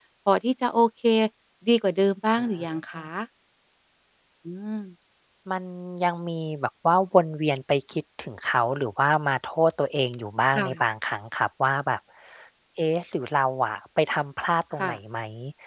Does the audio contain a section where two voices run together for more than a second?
No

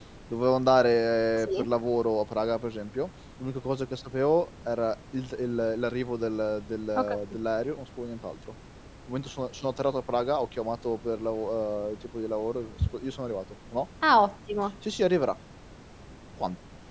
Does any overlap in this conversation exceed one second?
No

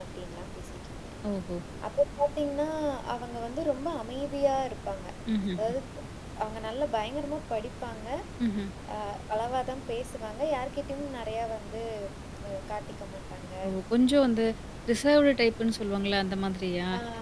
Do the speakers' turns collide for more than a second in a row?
No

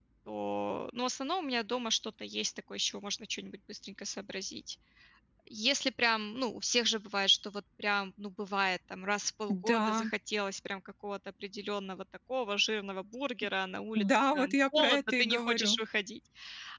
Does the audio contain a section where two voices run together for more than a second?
Yes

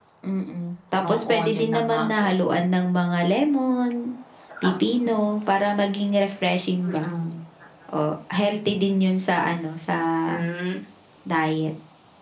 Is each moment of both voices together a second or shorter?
No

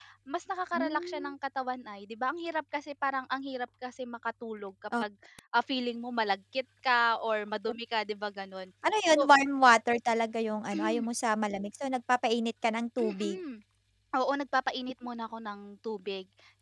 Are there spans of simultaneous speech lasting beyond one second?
No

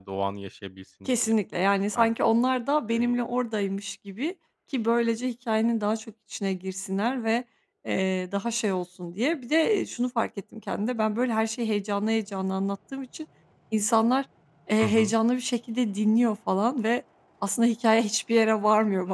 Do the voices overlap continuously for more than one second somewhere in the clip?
No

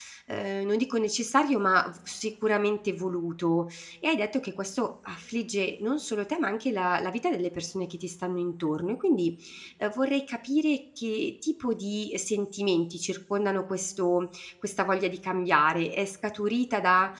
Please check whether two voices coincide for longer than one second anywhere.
No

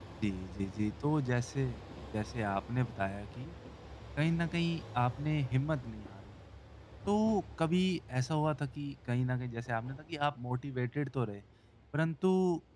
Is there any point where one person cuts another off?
No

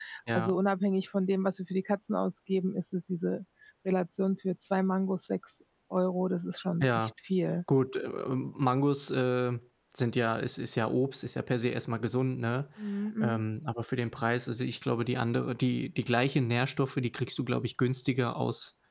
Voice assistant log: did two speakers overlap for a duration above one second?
No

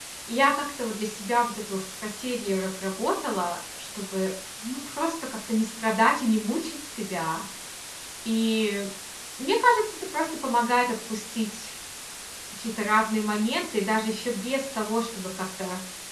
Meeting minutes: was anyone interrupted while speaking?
No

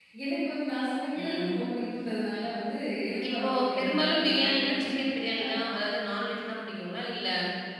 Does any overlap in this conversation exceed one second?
Yes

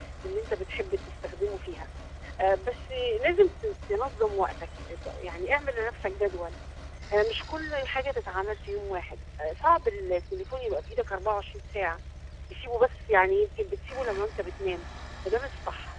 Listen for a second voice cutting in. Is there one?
No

